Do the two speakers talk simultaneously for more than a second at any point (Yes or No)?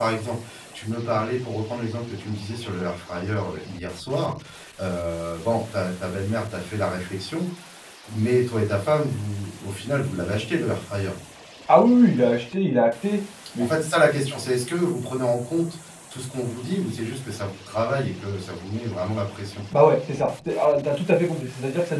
No